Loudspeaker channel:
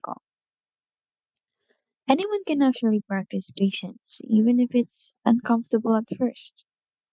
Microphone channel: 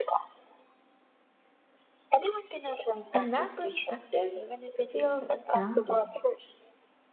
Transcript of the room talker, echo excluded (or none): And that perspective feels grounding.